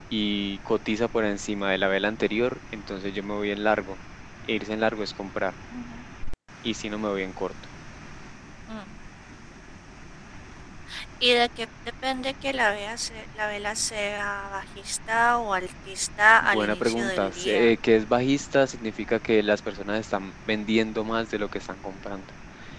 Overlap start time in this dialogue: 16.4 s

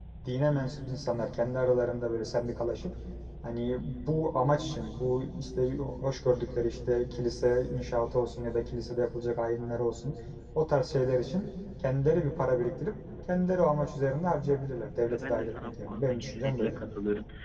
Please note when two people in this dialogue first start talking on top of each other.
15.1 s

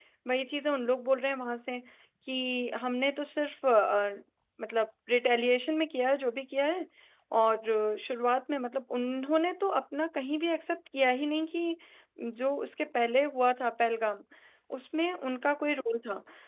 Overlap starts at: none

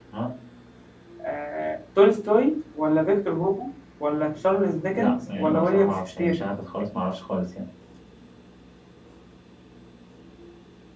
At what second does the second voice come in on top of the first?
5.0 s

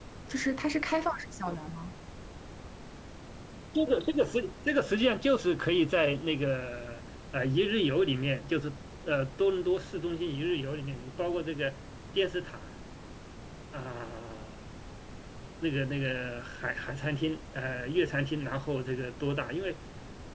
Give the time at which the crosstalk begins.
none

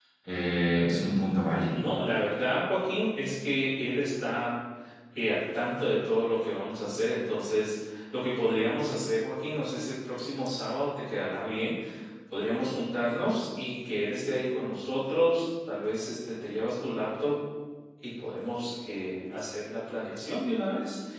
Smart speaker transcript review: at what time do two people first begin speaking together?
none

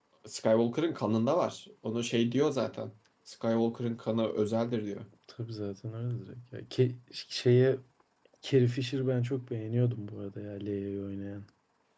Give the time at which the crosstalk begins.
none

